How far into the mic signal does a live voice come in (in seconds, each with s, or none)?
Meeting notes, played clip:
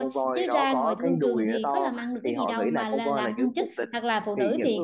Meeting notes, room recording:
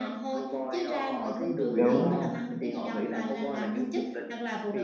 1.8 s